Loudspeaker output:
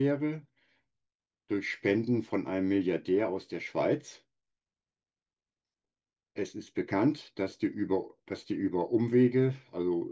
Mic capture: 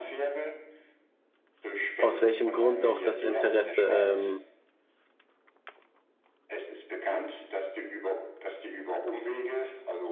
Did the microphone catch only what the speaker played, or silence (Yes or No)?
No